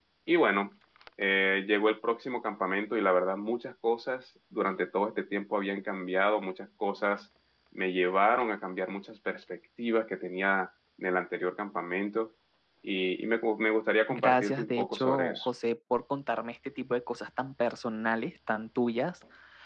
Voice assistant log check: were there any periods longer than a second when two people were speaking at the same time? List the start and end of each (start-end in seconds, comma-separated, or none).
14.1-15.5